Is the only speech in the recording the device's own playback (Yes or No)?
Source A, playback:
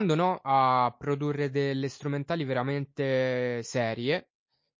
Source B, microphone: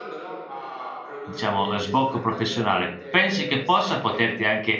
No